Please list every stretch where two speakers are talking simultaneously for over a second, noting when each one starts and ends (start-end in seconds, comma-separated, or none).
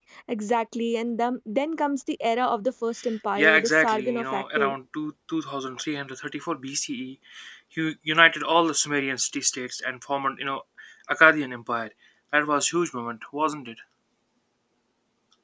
3.4-4.7